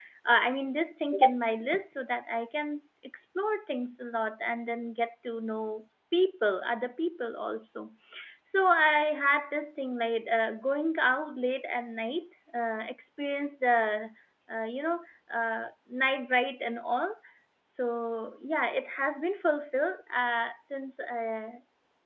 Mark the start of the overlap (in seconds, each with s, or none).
none